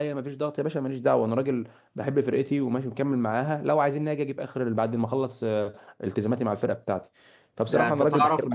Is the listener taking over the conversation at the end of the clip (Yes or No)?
Yes